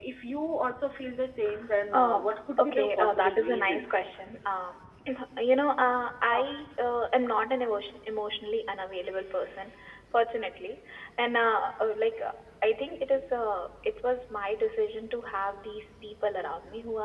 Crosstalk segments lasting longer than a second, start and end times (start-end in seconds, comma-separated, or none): 2.6-4.0